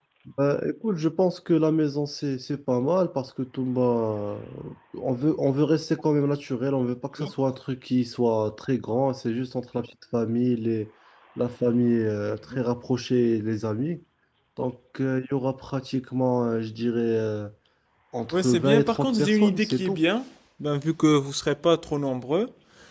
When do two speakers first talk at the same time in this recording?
18.3 s

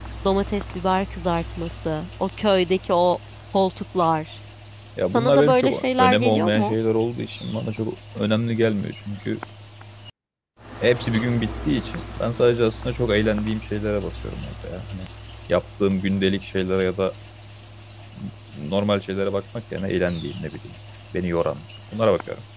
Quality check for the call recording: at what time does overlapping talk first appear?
5.1 s

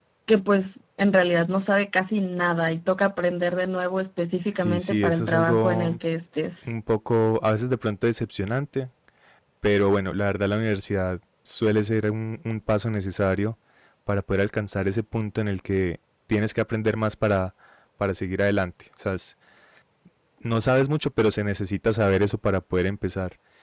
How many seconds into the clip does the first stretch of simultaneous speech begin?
4.5 s

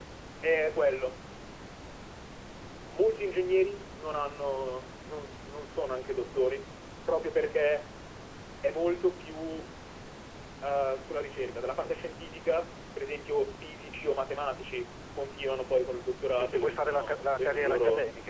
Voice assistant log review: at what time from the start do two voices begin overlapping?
16.4 s

